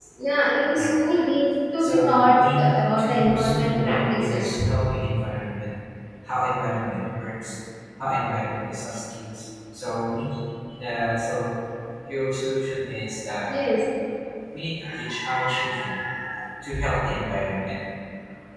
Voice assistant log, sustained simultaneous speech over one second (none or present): present